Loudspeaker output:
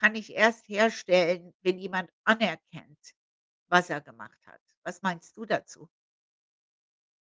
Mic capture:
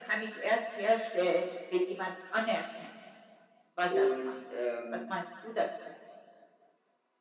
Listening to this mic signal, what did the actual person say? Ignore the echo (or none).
und, ähm